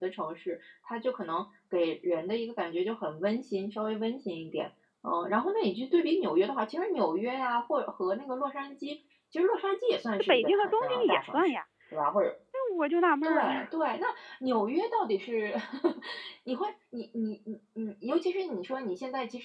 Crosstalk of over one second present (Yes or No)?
Yes